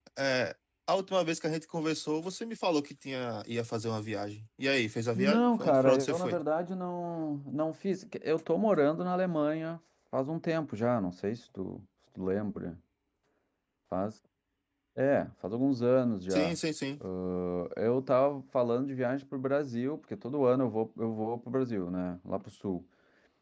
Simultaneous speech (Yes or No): Yes